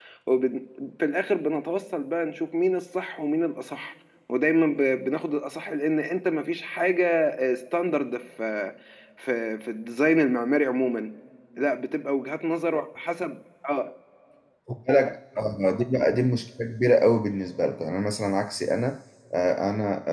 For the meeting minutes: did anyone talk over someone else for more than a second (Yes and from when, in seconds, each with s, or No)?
No